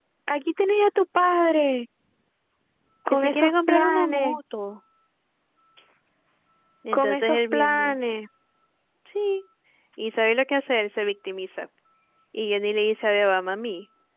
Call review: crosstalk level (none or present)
present